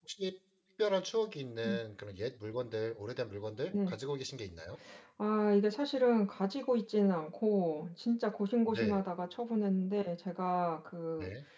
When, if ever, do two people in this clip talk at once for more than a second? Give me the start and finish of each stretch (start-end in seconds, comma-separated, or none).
none